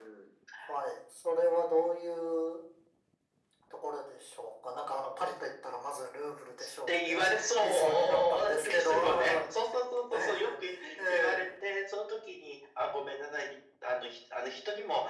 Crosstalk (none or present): present